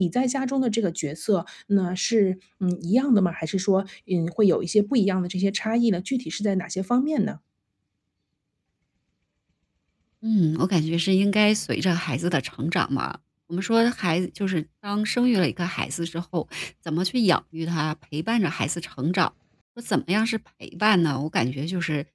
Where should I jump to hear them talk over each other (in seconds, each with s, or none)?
none